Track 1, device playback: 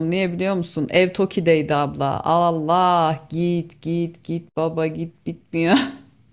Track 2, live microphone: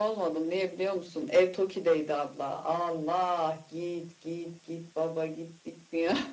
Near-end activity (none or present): none